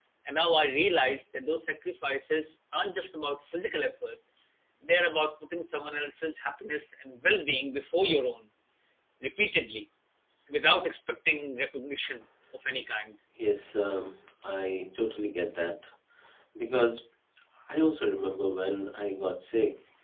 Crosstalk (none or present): none